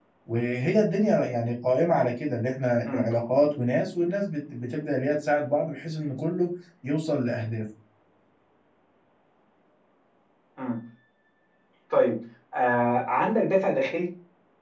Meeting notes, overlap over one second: none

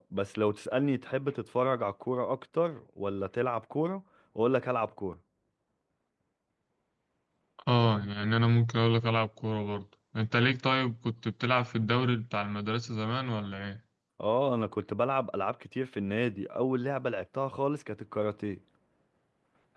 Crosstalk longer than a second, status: none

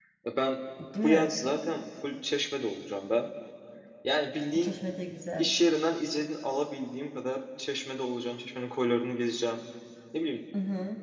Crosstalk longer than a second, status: none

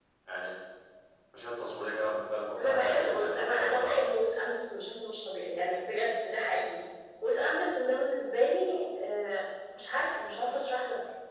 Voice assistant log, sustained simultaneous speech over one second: present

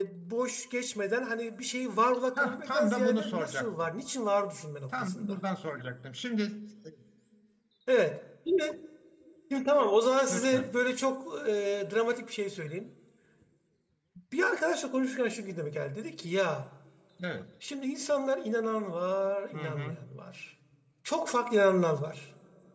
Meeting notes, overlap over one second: present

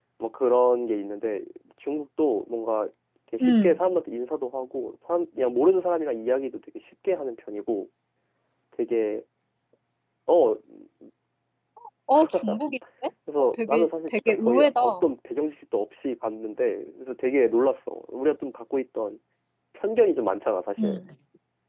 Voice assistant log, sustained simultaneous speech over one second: present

